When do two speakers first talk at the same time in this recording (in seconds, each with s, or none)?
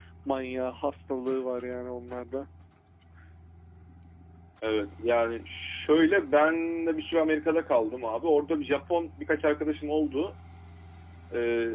none